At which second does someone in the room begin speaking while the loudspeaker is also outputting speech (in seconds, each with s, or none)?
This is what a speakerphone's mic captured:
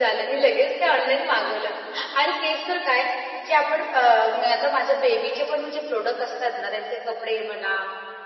none